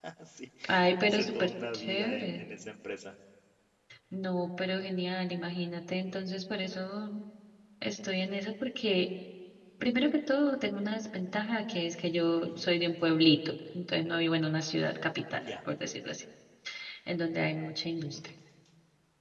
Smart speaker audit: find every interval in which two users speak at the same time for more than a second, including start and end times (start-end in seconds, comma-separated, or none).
1.0-2.5